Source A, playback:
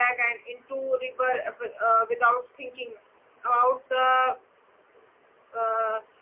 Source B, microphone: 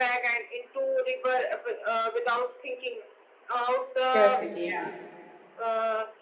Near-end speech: present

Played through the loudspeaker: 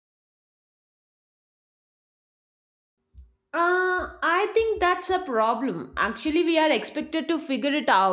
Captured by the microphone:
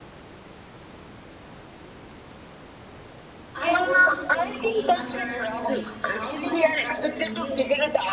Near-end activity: present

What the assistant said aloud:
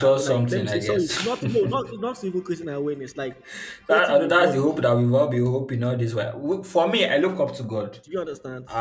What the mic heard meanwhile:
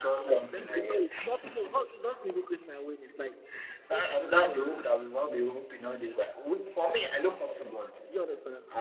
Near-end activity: none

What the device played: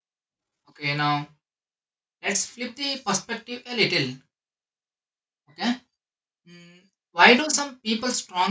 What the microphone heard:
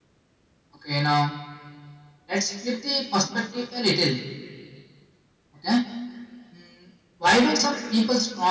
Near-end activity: none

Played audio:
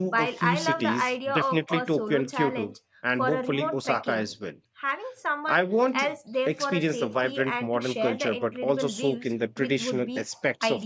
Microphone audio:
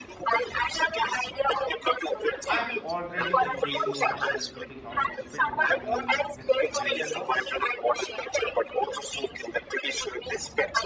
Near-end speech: present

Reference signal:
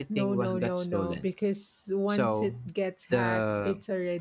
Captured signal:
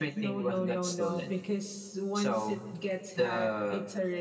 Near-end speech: none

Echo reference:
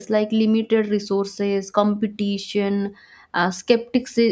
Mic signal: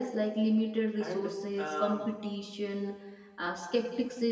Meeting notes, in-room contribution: present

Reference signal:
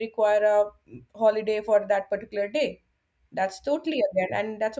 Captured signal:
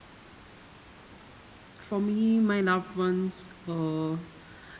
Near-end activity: present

